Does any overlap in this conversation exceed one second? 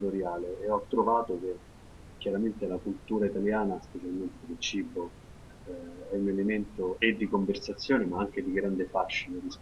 No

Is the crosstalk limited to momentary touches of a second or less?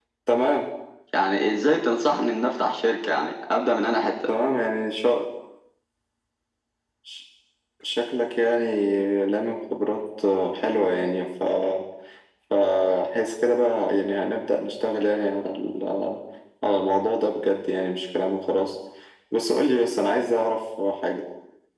Yes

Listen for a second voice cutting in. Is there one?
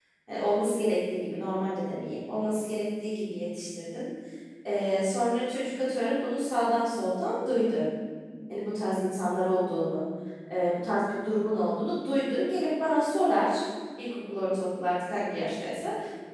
No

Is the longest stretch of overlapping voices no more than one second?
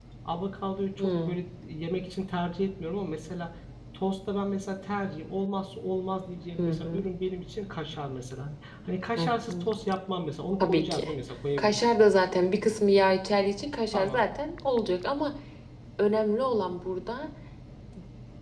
Yes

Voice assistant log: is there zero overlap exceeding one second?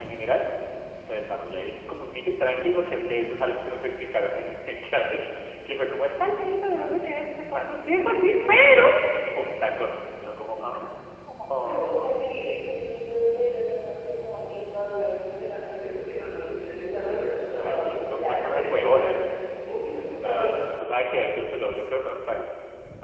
No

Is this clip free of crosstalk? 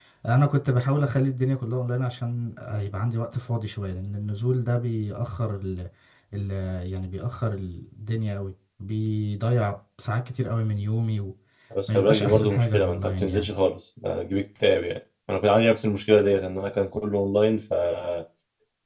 No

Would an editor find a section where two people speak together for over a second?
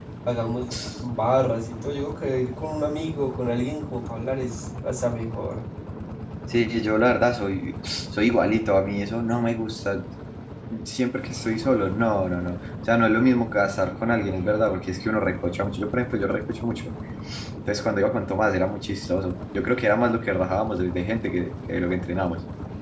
No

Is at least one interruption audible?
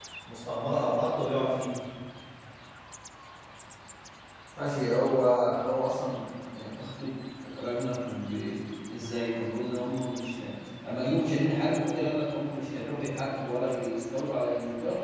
No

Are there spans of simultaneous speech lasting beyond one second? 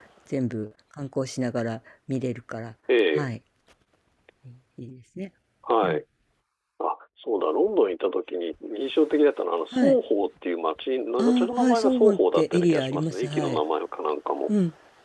Yes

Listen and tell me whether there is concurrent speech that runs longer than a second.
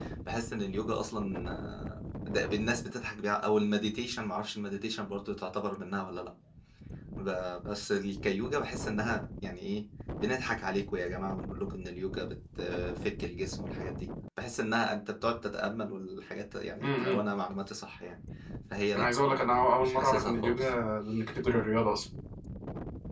Yes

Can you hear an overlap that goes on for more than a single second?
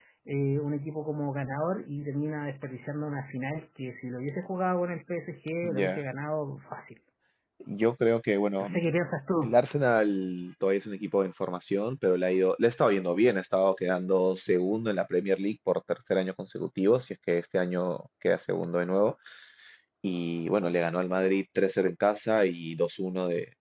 No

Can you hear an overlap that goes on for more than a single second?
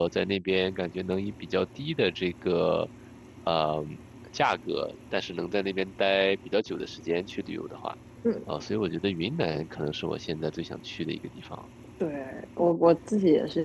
No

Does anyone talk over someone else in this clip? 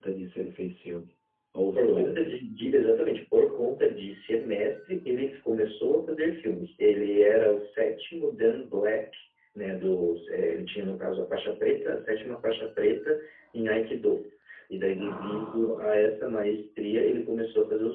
Yes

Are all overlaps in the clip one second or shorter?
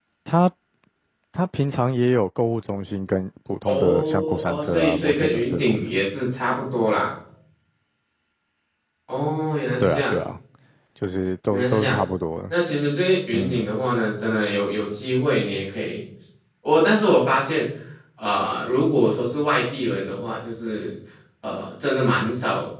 No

